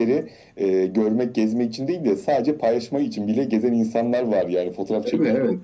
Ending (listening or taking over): listening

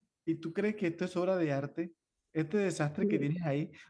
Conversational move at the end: listening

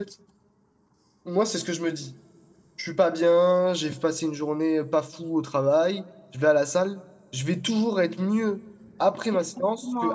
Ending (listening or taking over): taking over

